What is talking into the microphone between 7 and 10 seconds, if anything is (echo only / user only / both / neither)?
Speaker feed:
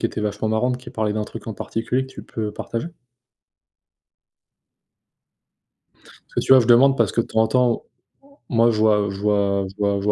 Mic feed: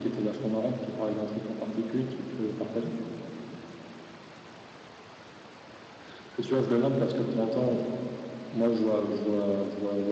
echo only